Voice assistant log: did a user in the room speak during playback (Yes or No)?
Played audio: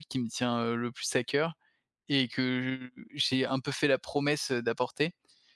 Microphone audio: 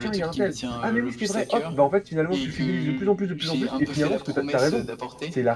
Yes